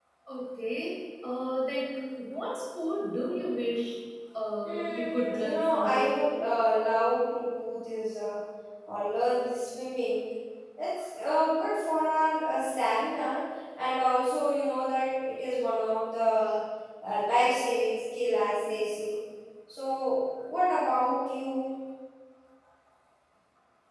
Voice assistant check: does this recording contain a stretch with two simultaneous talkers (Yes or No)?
Yes